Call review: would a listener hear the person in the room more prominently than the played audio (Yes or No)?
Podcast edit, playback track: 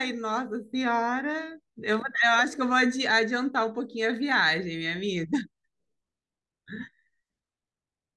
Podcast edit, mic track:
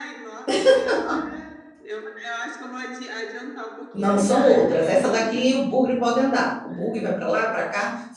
Yes